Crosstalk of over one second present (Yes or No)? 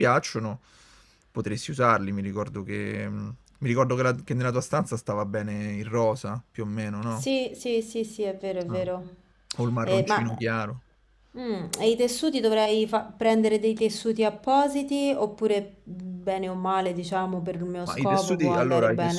Yes